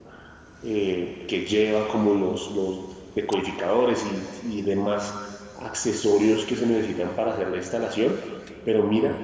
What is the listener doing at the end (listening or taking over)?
listening